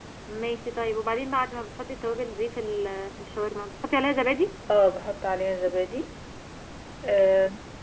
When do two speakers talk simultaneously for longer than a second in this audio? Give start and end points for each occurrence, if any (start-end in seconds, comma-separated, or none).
none